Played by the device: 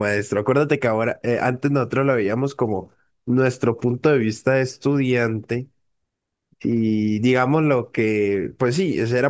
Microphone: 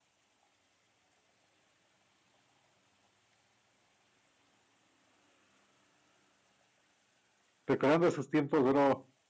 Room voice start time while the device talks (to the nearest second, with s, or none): 8 s